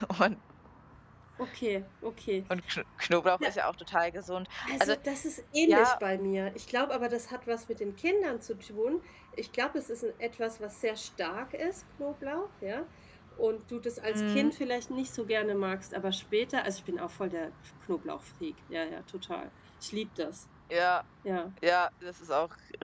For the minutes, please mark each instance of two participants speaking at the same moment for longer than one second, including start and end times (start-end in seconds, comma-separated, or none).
none